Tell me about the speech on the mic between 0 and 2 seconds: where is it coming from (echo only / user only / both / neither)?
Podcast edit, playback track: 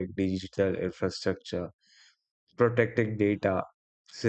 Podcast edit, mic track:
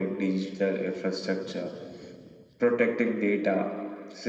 echo only